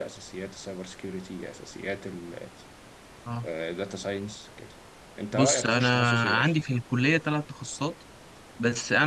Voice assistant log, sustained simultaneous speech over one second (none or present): present